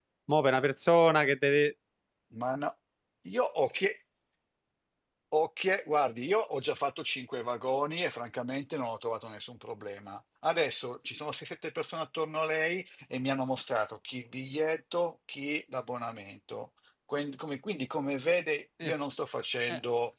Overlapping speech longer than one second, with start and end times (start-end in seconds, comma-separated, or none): none